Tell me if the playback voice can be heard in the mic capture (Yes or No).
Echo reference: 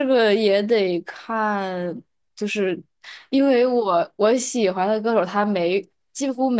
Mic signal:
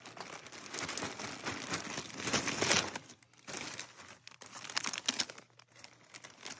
No